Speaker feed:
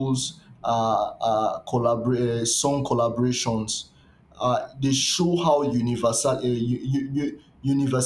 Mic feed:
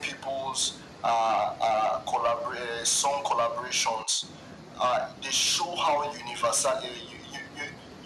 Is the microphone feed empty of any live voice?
Yes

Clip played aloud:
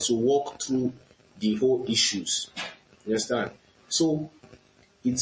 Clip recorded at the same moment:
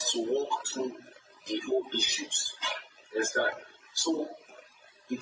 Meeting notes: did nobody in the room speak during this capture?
Yes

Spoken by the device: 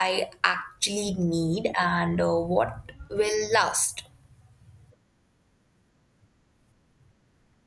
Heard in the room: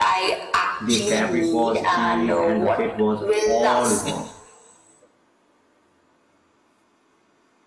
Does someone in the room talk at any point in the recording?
Yes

